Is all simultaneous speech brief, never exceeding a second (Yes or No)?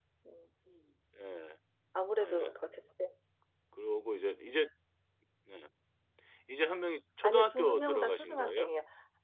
No